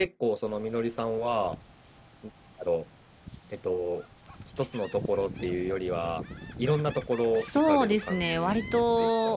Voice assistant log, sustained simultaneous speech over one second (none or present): present